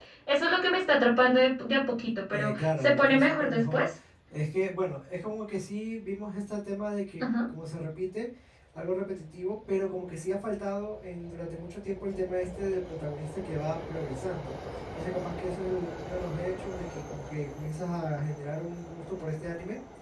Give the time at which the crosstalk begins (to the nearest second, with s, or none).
2 s